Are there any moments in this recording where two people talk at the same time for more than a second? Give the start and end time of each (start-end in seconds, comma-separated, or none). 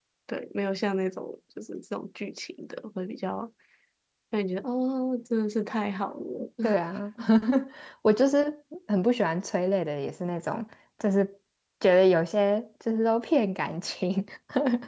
none